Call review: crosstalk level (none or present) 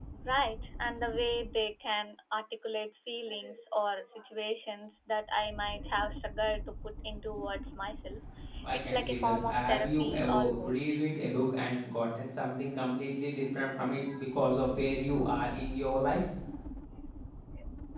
present